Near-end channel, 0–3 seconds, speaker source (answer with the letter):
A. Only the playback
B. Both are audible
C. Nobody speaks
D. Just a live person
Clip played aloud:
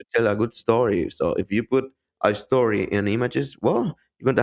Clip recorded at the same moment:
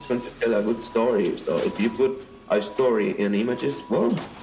A